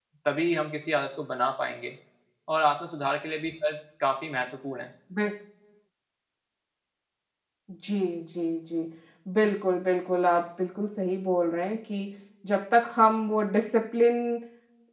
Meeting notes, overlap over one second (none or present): none